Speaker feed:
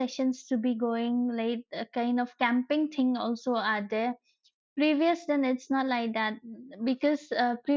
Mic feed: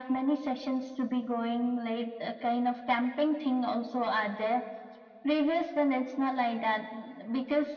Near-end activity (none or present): none